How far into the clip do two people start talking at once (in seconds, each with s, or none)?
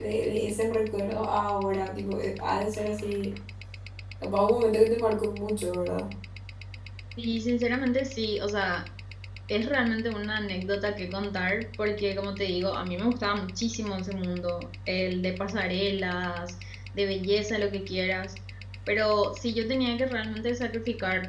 none